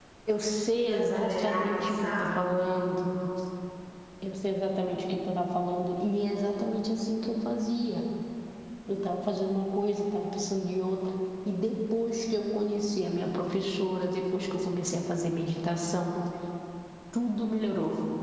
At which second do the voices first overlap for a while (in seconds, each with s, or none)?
0.7 s